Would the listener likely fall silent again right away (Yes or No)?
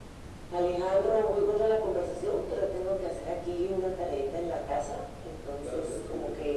No